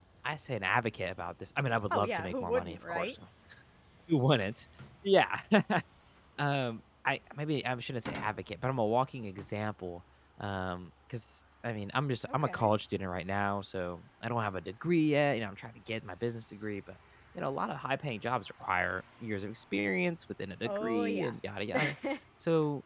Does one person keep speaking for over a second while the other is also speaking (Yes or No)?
Yes